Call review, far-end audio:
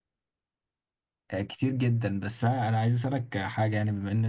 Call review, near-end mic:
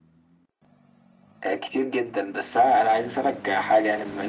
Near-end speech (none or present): none